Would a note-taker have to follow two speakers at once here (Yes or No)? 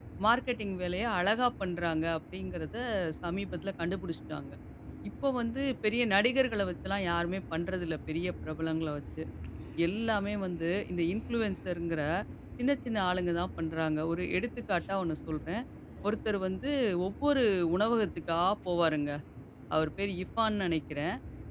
No